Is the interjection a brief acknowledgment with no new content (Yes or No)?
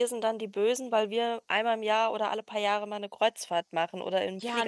No